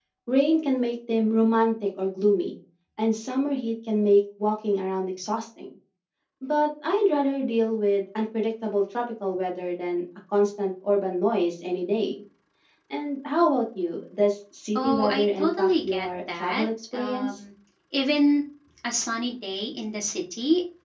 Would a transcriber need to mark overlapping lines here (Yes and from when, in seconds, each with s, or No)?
Yes, from 14.8 s